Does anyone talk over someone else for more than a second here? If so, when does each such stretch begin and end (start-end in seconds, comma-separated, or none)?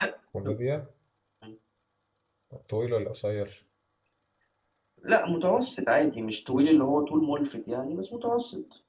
none